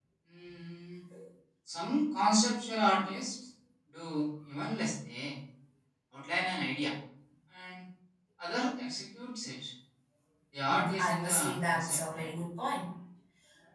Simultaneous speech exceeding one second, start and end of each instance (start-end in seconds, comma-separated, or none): 10.7-12.3